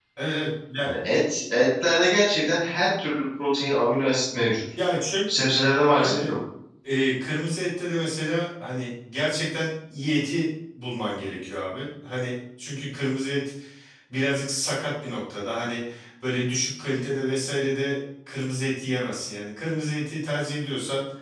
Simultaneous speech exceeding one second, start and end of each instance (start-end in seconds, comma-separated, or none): none